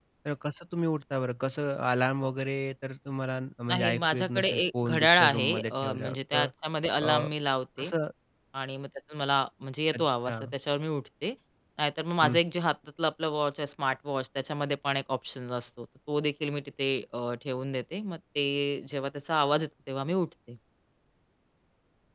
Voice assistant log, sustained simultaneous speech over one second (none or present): present